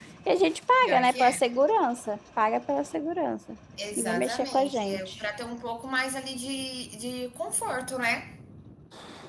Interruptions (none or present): present